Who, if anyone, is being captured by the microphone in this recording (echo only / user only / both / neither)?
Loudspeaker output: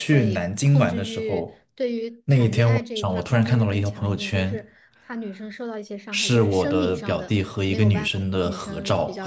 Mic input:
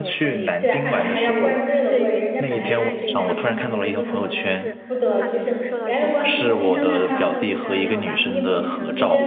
both